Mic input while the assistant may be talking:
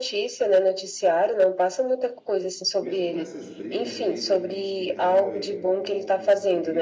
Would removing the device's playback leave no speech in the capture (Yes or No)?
No